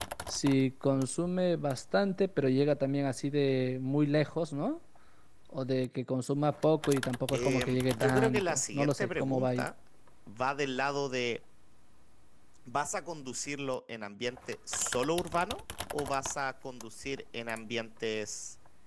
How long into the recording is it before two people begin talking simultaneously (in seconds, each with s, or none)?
7.3 s